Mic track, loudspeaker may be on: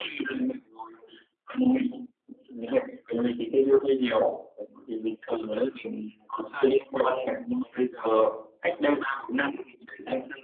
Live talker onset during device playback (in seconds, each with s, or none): none